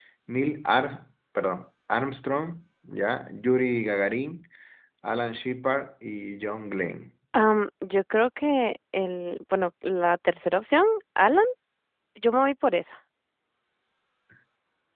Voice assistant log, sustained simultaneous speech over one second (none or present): none